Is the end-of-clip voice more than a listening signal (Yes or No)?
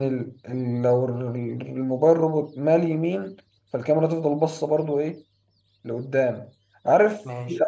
No